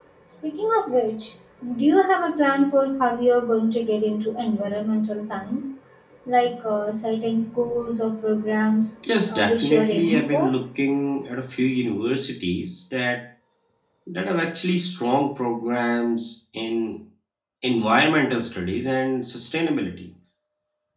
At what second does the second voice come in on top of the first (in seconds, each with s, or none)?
9.3 s